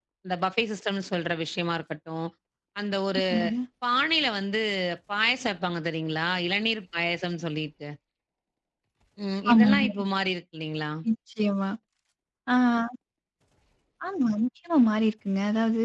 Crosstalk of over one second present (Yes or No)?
No